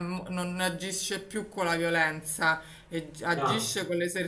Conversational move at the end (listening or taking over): listening